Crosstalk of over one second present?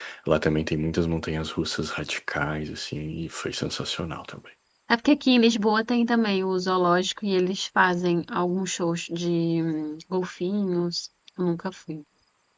No

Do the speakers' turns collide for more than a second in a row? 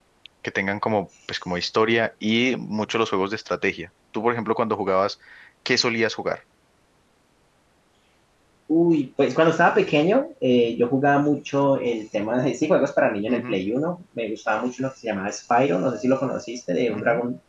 No

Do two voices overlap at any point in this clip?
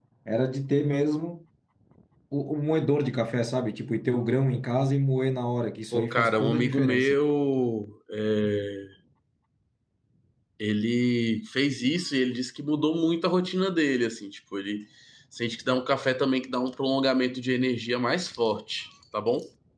Yes, from 5.9 s

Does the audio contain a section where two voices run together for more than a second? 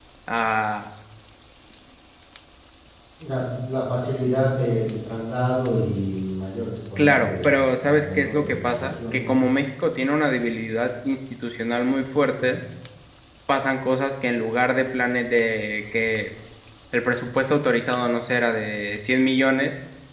Yes, from 7.0 s

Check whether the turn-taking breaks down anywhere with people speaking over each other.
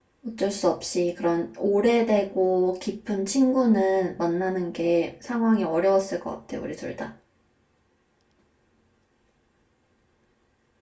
No

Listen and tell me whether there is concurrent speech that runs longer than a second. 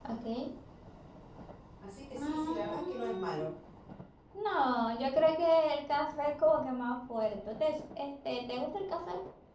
Yes, from 2.2 s

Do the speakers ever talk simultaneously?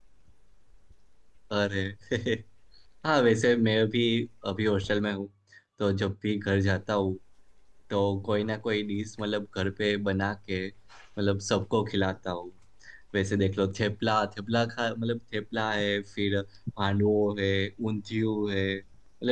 No

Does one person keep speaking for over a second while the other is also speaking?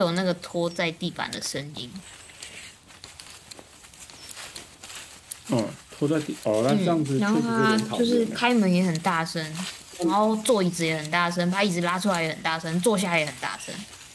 Yes, from 6.7 s

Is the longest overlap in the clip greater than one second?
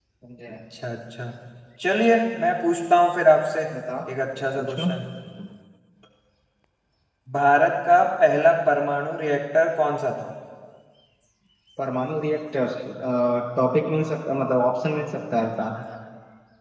No

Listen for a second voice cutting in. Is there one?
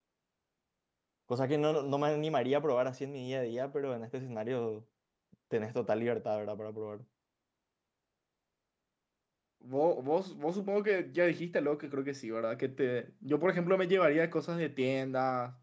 No

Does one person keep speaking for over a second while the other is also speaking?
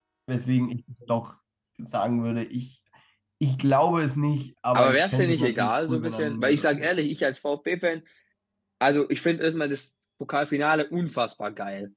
Yes, from 4.7 s

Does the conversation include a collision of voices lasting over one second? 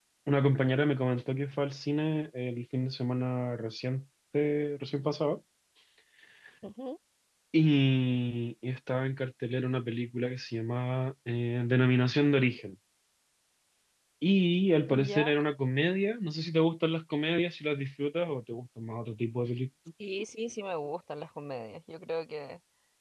No

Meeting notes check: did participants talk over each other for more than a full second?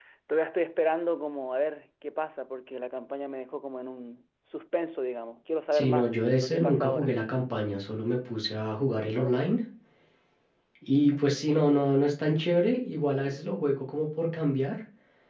Yes, from 5.7 s

